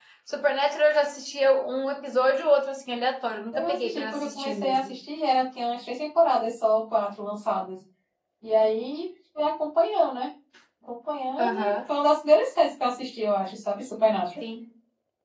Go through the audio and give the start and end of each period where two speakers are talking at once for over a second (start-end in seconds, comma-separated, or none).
3.5-5.0